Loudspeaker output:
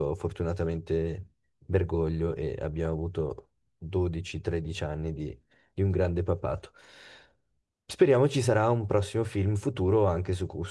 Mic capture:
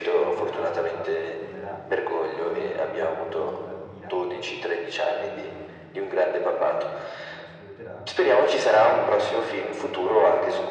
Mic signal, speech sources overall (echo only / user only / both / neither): both